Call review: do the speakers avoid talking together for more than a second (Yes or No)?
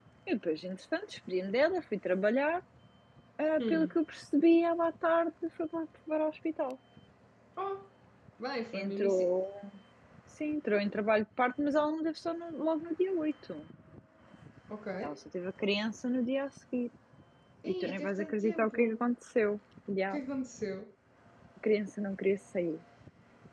No